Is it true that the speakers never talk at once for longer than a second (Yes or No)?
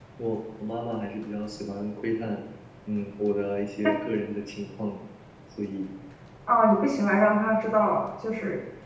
Yes